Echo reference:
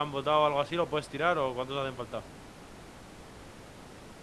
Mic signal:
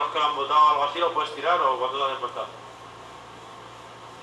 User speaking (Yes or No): No